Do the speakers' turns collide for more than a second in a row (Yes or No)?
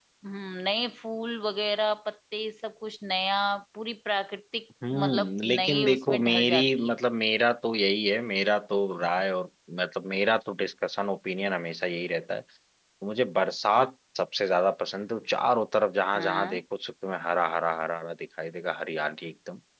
Yes